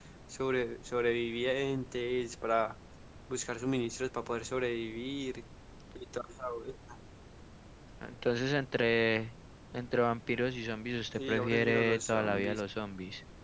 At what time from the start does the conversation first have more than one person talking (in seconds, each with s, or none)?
11.2 s